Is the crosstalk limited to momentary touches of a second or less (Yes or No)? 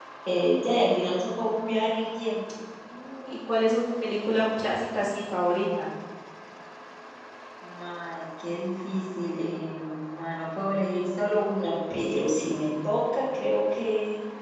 Yes